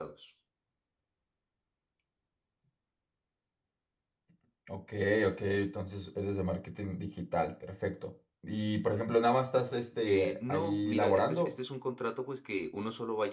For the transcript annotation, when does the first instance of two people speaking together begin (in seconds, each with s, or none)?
10.1 s